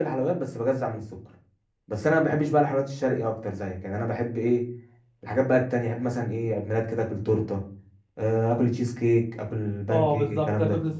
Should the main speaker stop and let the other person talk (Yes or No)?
Yes